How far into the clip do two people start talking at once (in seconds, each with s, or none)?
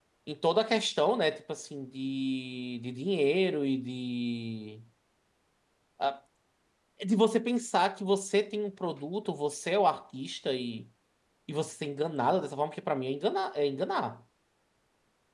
none